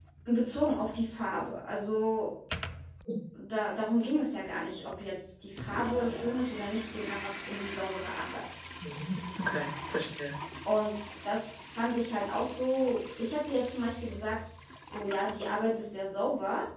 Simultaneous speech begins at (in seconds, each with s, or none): none